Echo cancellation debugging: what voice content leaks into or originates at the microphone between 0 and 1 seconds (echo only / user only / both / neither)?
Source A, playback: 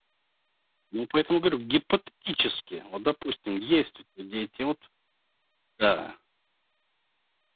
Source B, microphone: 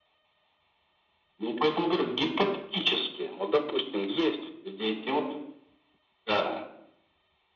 neither